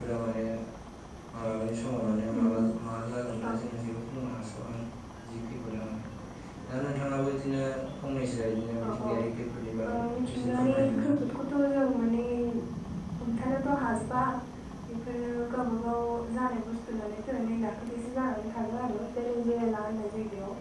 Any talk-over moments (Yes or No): Yes